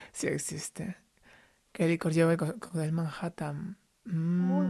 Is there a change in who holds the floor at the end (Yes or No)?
Yes